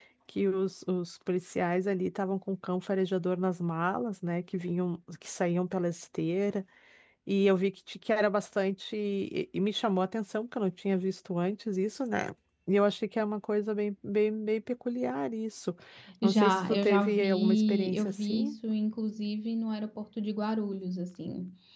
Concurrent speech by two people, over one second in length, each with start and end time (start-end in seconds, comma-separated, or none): 16.2-18.5